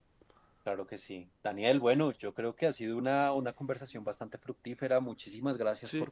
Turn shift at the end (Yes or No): No